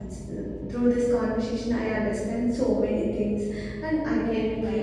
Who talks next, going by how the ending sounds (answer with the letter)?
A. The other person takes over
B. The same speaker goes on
B